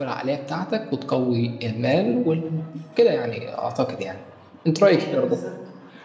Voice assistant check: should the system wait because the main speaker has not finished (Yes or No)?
No